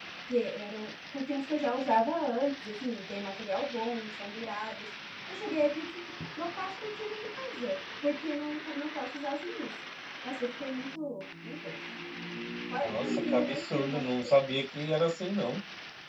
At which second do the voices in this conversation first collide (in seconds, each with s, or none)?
12.8 s